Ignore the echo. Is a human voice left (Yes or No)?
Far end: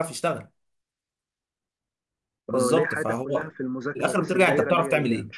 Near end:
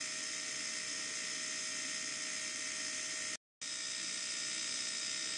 No